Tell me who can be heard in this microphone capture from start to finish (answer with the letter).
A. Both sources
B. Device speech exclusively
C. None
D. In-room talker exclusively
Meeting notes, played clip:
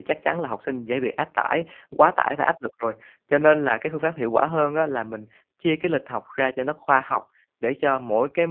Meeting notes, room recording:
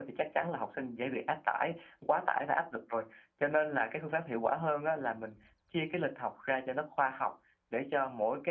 B